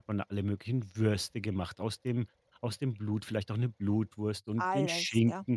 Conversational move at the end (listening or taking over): listening